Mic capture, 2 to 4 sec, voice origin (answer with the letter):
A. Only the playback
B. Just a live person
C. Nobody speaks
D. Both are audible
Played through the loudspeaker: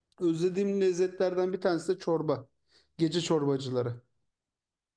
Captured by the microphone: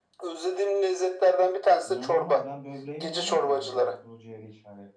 D